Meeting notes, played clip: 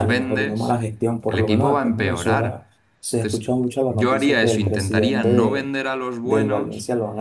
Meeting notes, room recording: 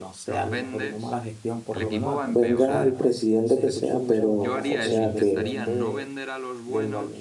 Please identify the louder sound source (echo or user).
user